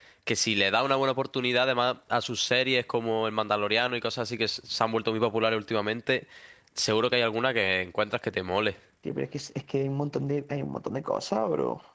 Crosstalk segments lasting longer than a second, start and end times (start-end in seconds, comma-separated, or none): none